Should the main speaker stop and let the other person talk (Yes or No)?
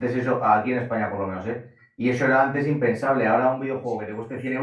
No